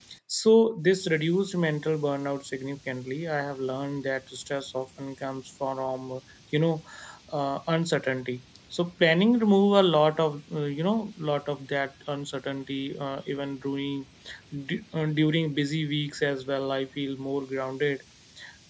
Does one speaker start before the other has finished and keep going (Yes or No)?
No